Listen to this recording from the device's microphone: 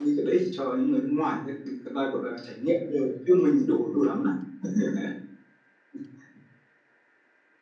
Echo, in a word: none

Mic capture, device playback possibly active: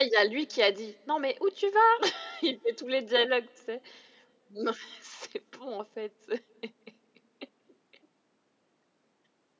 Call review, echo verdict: none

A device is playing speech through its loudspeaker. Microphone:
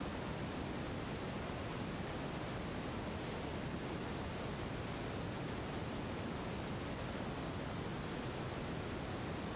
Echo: none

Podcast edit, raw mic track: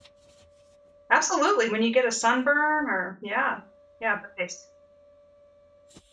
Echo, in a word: none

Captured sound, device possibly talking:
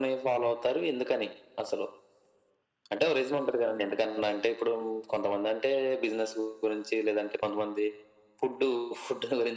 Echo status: present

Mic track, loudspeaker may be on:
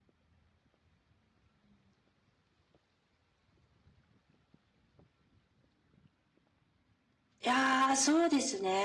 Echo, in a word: none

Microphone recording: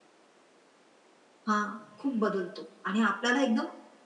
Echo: none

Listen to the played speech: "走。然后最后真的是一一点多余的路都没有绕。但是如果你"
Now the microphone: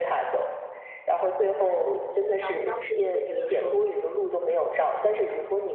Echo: present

